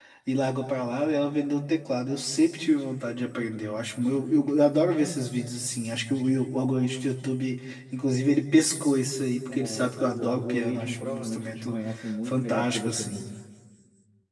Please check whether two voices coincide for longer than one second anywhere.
Yes, from 9.5 s

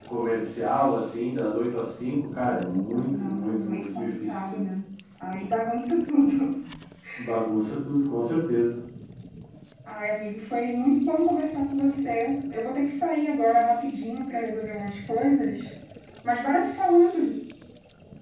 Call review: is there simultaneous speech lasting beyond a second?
Yes, from 3.1 s

